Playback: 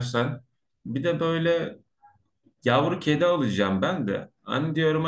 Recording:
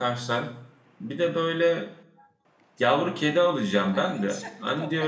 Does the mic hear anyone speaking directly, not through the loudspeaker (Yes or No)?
Yes